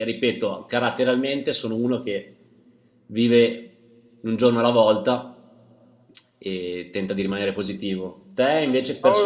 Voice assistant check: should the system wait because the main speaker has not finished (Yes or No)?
No